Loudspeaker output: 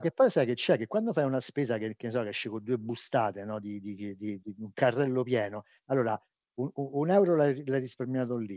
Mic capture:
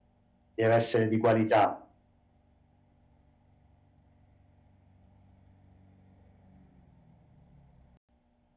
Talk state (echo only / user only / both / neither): user only